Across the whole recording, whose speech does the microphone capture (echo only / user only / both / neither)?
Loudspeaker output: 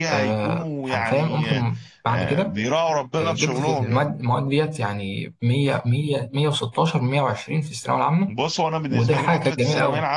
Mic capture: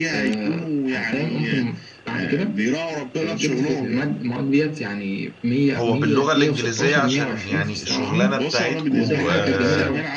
both